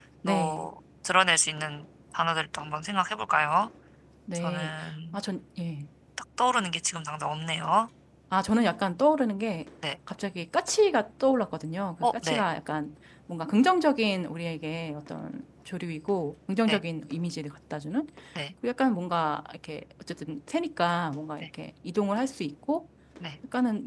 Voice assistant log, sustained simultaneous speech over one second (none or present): none